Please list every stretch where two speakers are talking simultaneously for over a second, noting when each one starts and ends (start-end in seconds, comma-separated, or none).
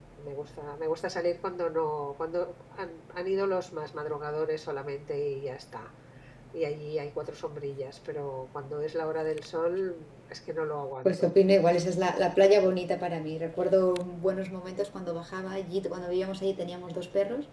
none